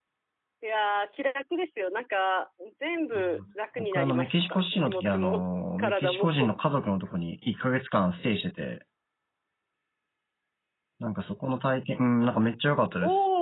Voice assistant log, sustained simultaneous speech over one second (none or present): present